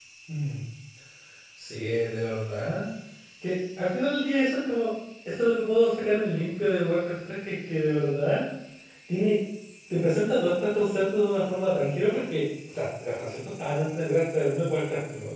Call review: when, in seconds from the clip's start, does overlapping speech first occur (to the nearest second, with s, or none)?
none